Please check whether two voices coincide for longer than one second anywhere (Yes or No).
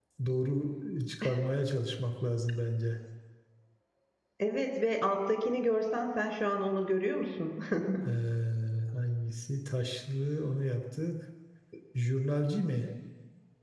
No